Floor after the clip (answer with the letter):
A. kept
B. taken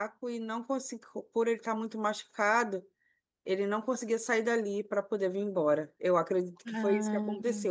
A